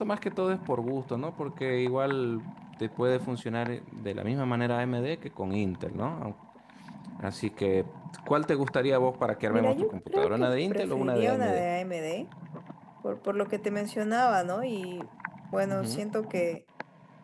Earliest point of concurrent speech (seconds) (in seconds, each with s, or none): 9.5 s